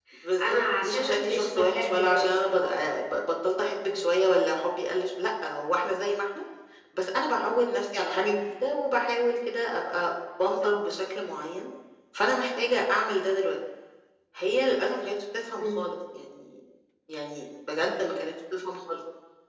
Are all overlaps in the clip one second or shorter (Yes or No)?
No